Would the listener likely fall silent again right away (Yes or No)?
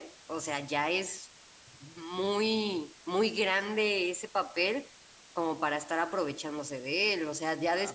No